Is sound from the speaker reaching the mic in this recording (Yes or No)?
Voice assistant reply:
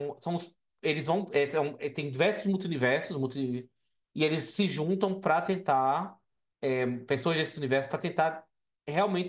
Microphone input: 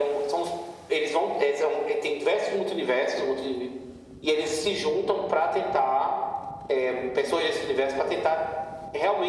Yes